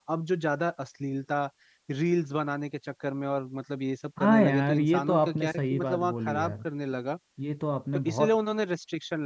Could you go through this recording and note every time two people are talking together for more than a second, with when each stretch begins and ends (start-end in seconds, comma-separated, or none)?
4.2-6.5